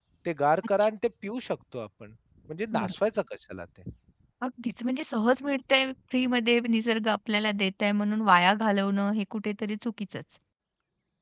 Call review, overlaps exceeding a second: none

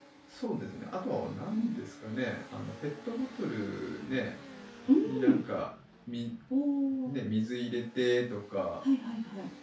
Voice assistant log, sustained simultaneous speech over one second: none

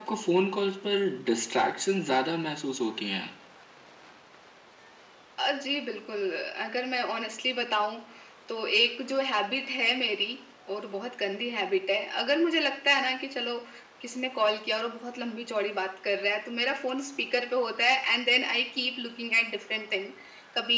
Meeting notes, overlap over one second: none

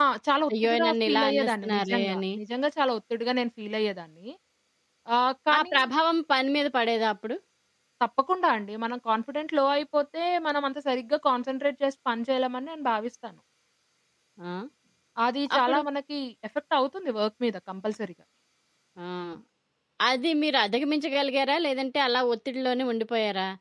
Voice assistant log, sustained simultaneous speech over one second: present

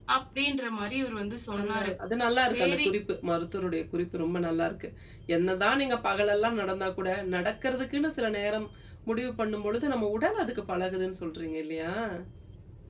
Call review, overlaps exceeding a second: none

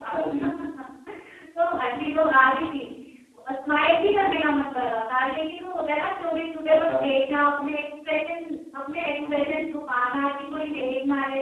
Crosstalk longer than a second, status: none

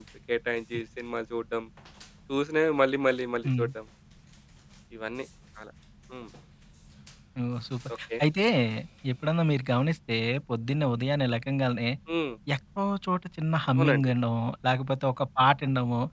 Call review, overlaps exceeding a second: none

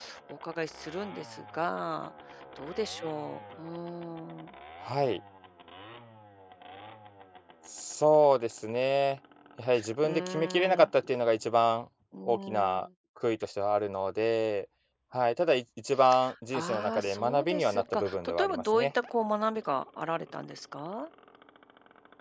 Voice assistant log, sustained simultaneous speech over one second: present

